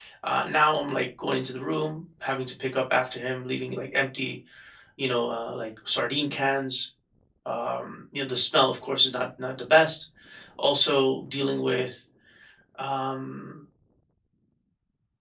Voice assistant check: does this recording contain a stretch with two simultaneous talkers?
No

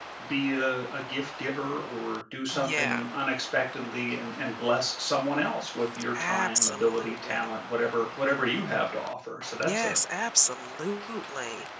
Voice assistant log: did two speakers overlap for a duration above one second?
Yes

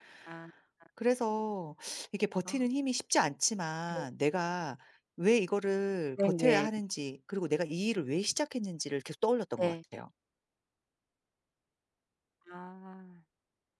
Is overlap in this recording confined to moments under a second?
Yes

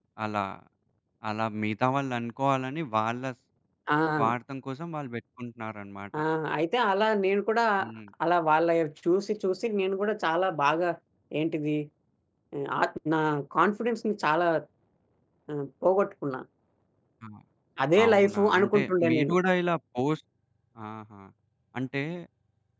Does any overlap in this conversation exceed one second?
Yes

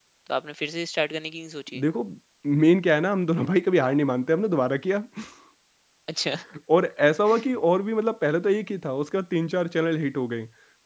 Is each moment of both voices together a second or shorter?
Yes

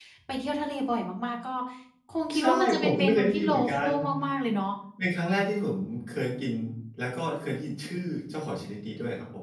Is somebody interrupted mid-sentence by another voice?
Yes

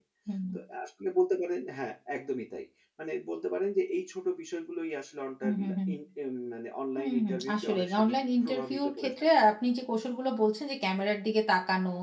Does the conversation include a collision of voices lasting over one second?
Yes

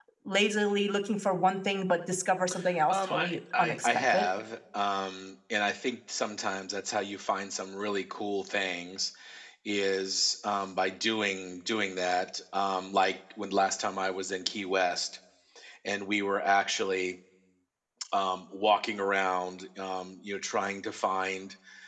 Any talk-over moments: Yes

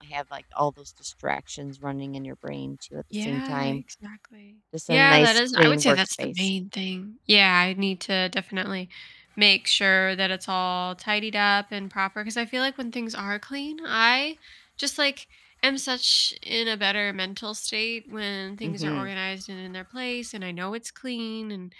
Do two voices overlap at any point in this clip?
Yes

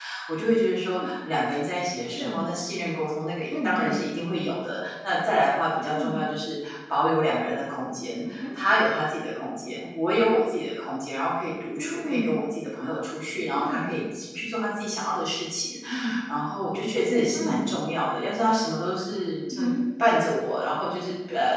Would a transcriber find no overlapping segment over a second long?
Yes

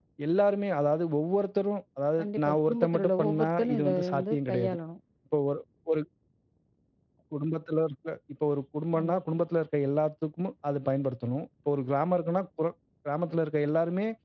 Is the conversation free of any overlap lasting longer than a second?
No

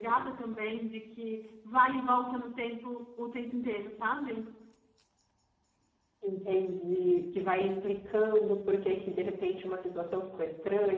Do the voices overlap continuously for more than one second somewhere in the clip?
No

